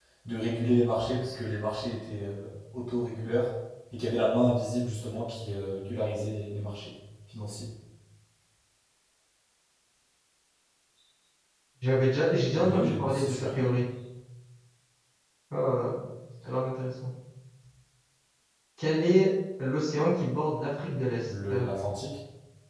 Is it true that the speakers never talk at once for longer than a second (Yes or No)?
No